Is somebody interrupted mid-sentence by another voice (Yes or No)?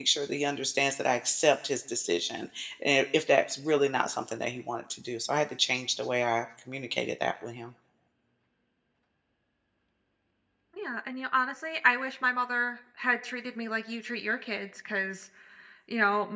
No